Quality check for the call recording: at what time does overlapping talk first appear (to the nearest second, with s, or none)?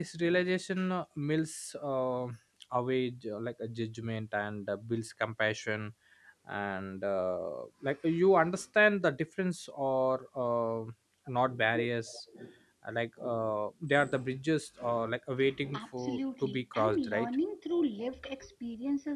16 s